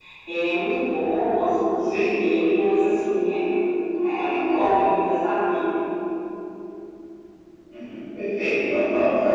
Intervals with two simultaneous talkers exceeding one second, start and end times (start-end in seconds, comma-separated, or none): none